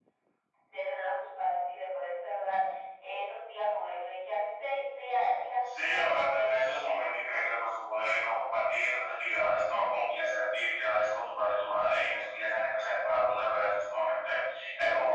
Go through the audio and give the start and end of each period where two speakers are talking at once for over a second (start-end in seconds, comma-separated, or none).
5.8-7.4